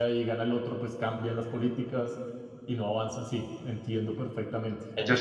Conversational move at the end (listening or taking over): taking over